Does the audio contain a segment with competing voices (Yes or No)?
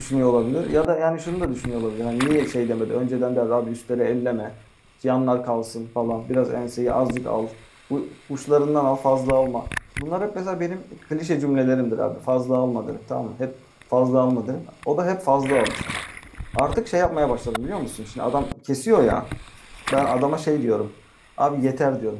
No